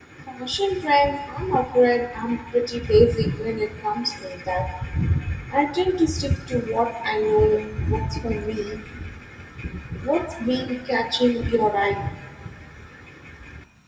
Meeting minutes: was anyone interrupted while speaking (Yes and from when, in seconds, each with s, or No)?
No